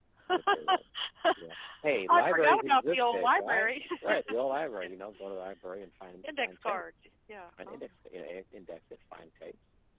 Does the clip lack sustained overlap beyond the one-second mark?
No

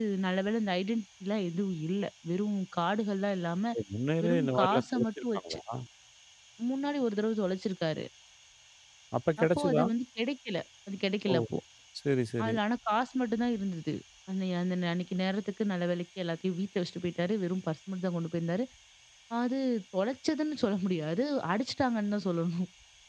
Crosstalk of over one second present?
Yes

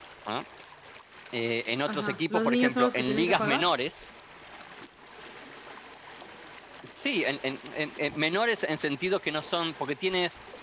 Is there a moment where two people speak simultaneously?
Yes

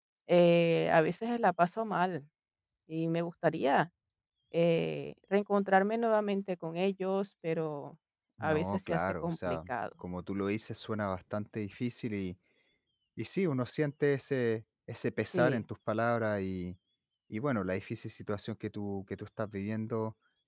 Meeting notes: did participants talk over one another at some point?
Yes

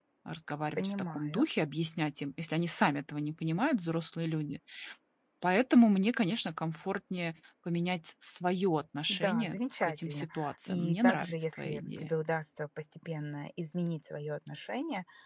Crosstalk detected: Yes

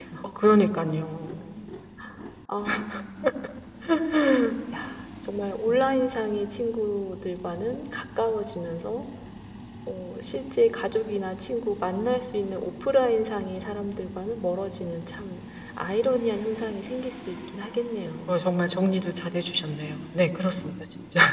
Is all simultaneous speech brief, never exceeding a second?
Yes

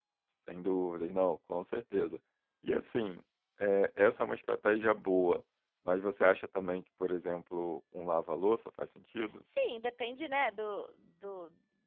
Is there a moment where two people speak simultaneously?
No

